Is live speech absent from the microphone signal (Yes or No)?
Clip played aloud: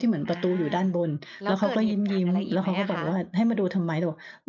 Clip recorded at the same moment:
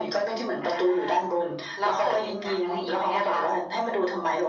Yes